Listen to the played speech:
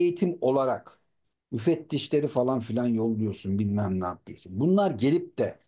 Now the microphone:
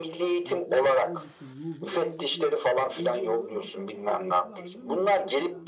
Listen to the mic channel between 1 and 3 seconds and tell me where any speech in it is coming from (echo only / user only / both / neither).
both